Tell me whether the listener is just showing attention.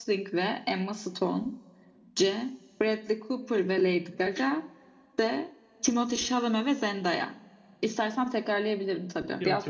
No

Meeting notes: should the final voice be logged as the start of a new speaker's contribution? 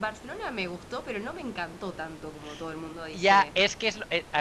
Yes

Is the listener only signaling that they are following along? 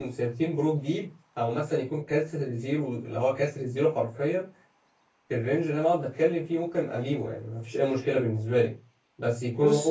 No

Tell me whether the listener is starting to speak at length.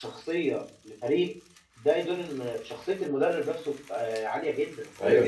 Yes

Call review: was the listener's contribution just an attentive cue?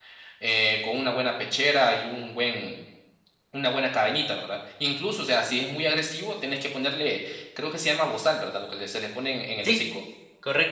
No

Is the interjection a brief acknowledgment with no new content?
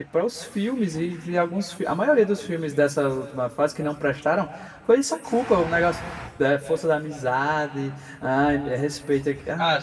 No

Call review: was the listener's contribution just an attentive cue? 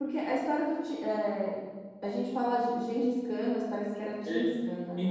No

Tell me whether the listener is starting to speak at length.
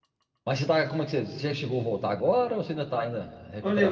Yes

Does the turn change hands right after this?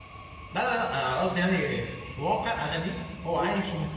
No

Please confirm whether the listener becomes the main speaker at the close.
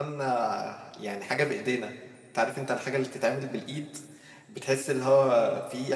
Yes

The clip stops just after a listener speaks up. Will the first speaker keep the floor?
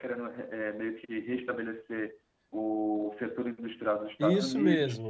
No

